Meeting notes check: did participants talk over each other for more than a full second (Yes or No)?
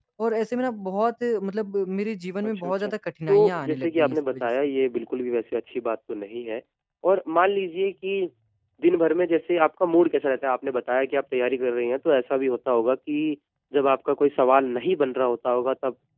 Yes